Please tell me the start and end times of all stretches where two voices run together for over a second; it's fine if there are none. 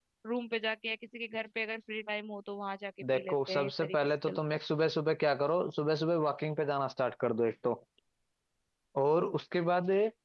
3.1-4.4

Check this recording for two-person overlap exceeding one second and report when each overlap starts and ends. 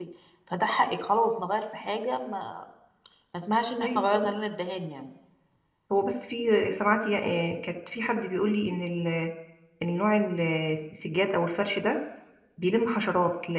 none

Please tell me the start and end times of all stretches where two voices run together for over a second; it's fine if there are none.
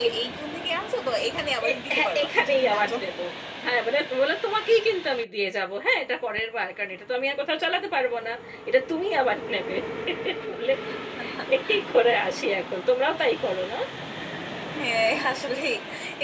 1.7-3.1

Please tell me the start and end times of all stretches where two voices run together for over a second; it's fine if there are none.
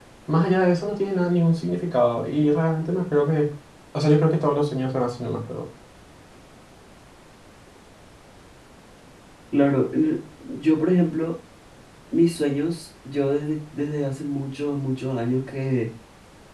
none

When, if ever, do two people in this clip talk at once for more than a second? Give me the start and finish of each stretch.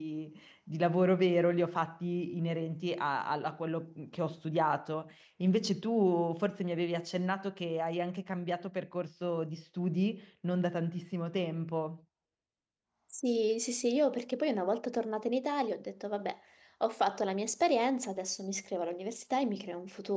none

